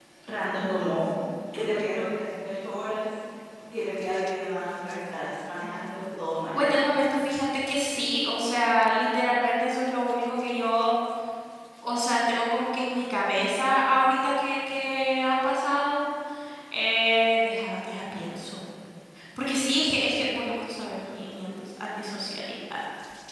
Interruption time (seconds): none

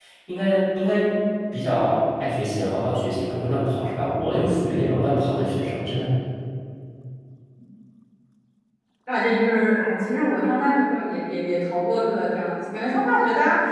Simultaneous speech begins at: none

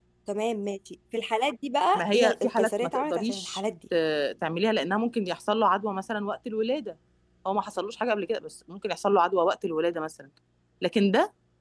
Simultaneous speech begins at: 1.9 s

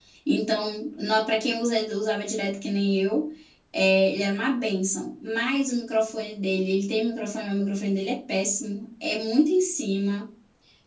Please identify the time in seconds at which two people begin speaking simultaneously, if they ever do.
none

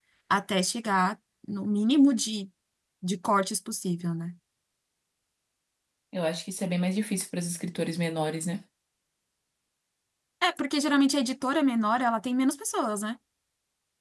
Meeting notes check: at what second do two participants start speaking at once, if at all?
none

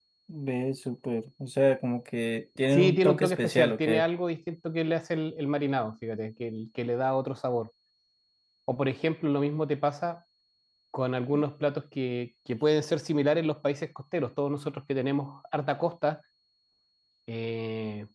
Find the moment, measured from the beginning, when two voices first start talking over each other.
2.7 s

